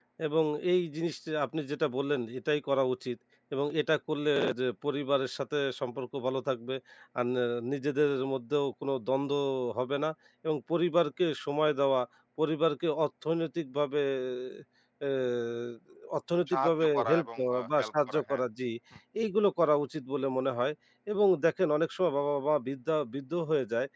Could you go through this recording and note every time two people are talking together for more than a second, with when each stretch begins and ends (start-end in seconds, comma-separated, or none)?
16.5-18.4